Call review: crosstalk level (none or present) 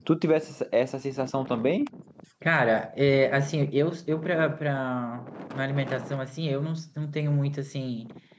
none